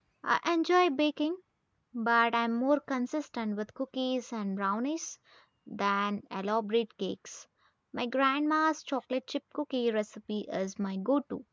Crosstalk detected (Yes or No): No